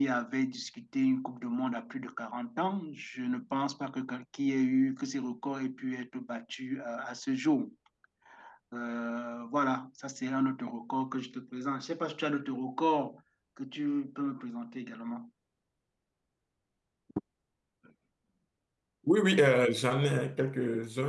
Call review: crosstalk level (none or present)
none